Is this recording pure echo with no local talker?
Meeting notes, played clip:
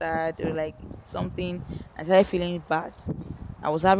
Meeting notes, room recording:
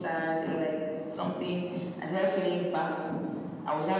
Yes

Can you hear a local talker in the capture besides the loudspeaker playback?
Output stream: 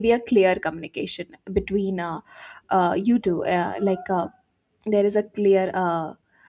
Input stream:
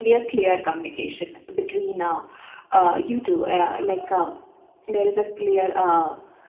No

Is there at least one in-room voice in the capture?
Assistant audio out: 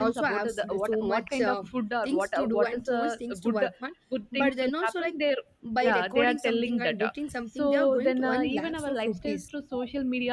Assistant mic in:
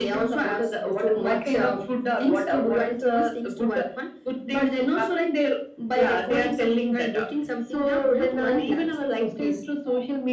No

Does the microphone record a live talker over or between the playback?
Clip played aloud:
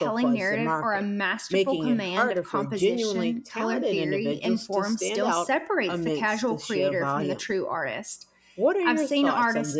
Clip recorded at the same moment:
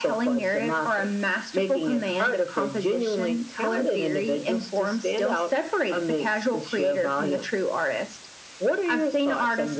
No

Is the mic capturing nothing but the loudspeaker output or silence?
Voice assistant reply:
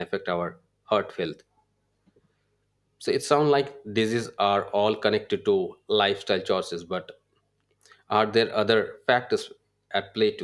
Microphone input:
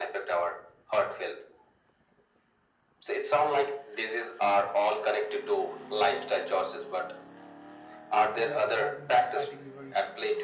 No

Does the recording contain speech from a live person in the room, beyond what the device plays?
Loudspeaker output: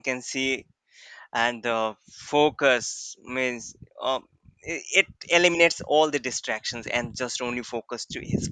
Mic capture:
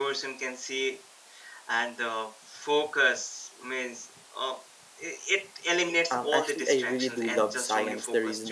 Yes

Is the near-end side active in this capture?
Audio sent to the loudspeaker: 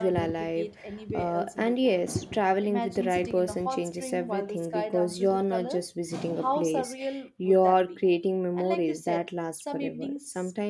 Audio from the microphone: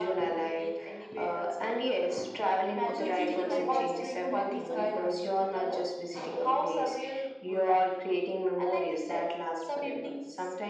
Yes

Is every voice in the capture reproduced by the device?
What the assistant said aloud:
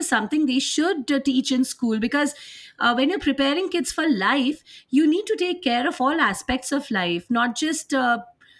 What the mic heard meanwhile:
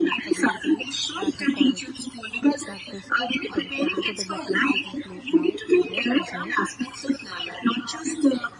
No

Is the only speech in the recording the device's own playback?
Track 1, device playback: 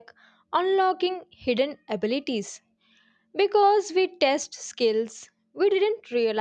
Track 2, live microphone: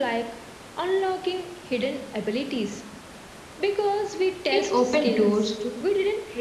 No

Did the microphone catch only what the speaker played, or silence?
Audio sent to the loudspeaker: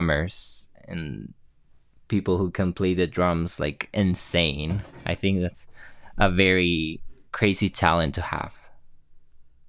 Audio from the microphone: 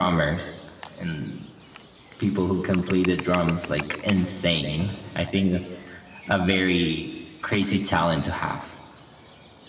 Yes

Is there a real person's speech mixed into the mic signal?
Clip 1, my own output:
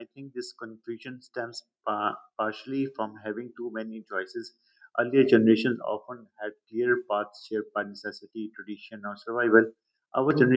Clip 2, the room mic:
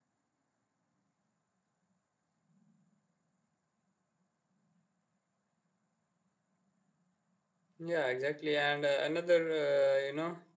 Yes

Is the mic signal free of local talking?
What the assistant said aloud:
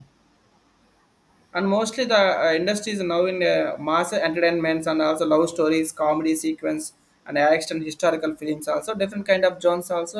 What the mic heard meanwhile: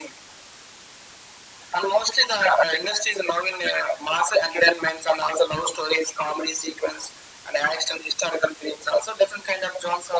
Yes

